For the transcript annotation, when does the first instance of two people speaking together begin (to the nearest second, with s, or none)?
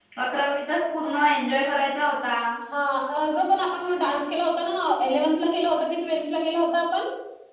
none